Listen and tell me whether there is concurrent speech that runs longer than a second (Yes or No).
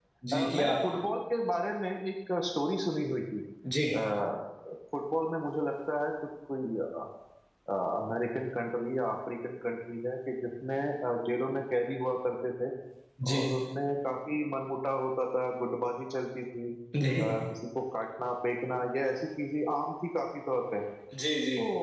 No